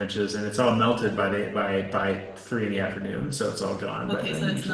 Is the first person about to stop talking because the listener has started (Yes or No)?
Yes